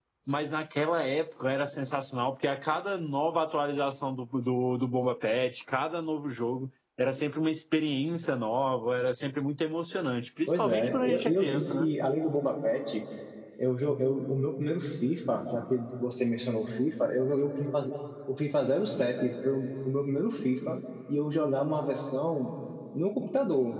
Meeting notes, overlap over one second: present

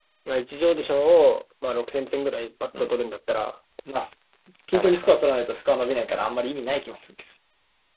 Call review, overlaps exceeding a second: none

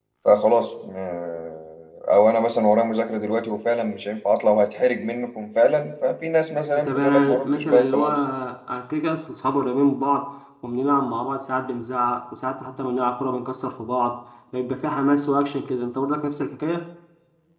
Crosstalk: present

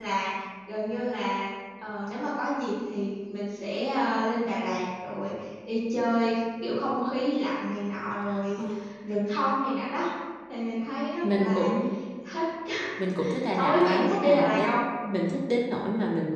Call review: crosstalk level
present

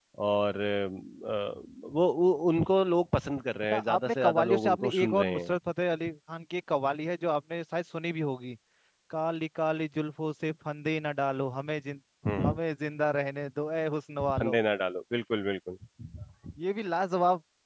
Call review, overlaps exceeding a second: present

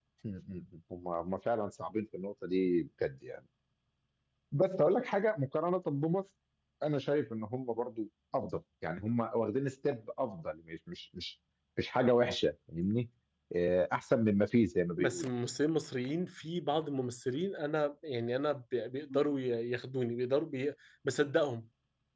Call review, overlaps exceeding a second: none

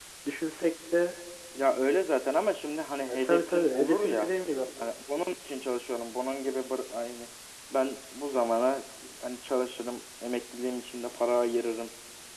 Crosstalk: present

